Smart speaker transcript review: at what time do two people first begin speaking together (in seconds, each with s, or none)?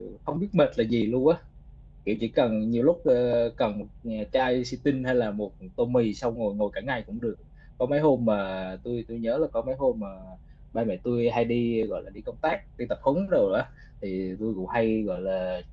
none